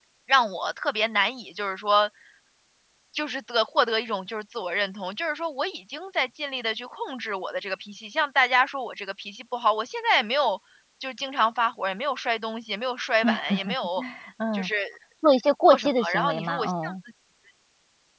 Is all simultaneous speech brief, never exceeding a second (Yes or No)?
No